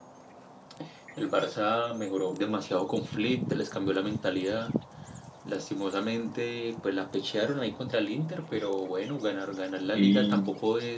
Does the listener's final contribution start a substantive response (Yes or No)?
No